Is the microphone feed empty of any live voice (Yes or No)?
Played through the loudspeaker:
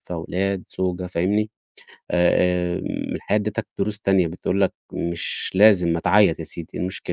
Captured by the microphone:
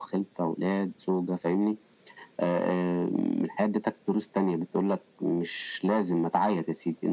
Yes